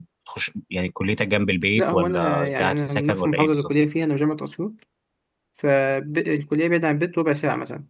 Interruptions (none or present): present